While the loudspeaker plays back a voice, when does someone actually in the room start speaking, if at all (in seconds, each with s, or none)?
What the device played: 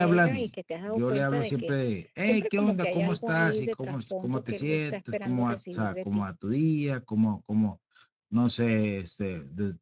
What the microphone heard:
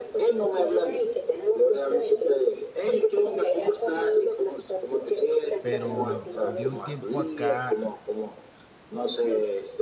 5.6 s